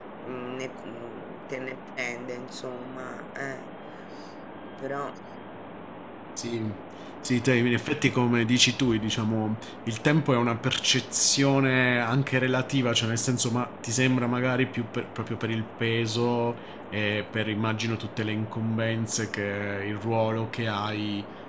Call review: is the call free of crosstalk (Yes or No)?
Yes